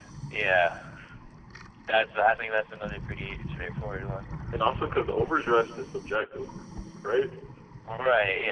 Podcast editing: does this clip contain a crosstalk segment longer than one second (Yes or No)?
No